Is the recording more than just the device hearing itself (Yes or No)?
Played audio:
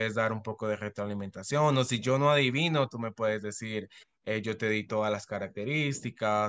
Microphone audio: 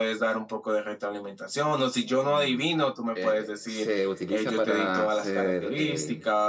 Yes